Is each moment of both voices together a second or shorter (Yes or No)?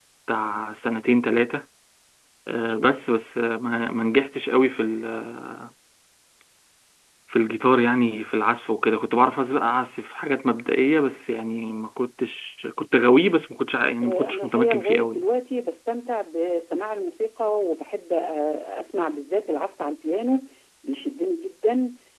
No